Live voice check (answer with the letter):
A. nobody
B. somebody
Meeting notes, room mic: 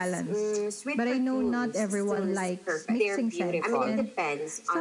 B